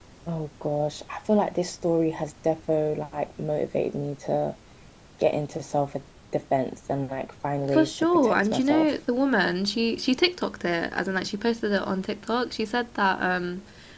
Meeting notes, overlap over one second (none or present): present